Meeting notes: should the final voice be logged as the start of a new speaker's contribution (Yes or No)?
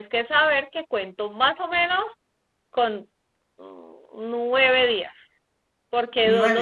No